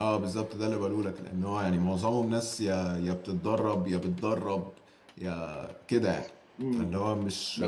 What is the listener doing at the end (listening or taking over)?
taking over